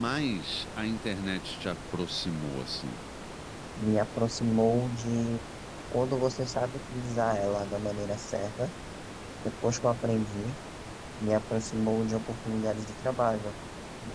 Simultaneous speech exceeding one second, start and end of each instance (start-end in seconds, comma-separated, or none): none